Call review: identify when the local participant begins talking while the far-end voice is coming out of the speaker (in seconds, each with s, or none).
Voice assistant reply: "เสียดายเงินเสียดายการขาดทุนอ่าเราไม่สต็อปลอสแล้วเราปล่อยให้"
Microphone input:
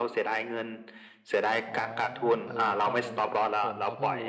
1.7 s